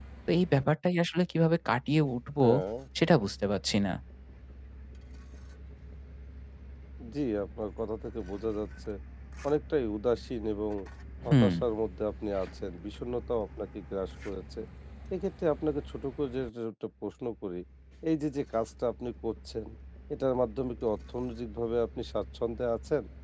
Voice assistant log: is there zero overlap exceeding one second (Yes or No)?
Yes